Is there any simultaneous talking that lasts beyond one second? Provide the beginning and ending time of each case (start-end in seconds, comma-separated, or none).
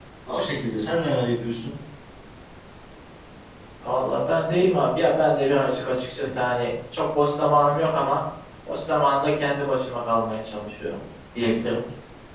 none